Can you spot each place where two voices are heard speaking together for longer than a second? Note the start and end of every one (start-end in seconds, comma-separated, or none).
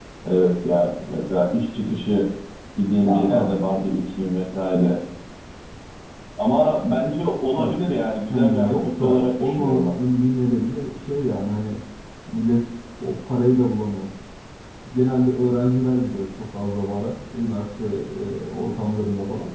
8.3-9.9